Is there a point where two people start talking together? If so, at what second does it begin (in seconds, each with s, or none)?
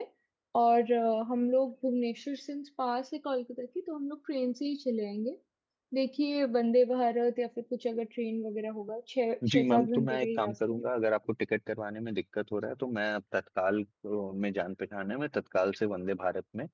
9.4 s